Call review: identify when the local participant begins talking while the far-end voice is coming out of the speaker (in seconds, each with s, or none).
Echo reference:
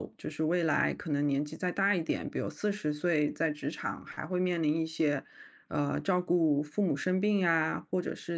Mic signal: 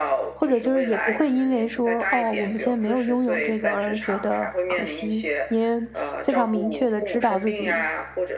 0.4 s